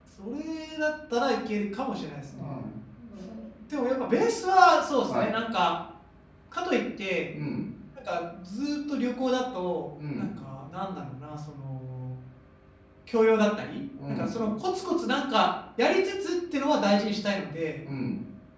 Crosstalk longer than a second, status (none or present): none